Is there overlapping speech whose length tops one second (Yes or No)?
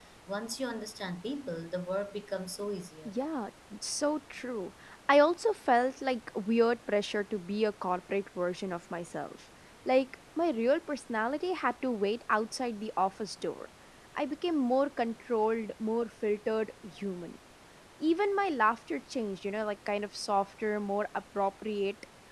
No